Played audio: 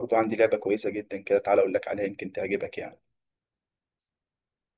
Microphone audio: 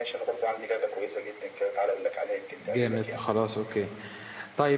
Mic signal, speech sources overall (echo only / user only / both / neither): both